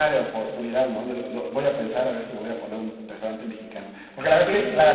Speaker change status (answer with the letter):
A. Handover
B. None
B